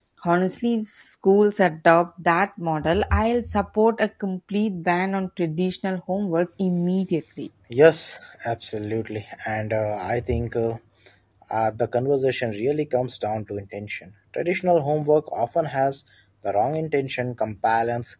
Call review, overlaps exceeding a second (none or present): none